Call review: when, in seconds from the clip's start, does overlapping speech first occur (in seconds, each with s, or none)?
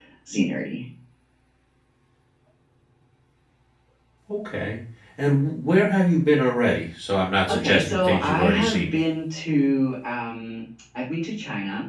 7.5 s